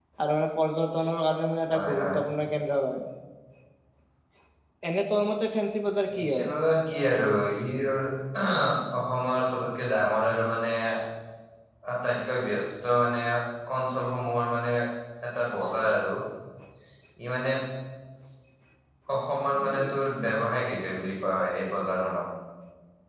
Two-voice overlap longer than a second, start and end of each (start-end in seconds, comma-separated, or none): none